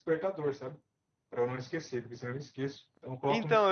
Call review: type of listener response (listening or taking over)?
taking over